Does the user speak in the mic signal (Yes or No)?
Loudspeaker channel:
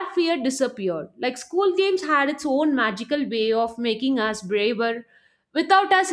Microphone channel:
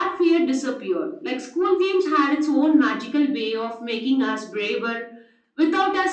No